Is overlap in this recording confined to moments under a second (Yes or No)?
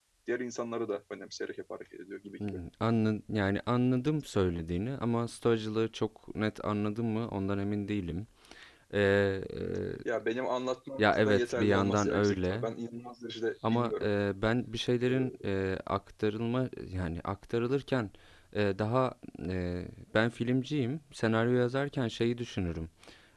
No